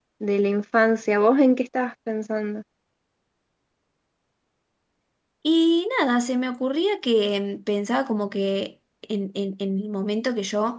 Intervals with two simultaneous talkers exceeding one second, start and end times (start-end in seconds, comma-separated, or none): none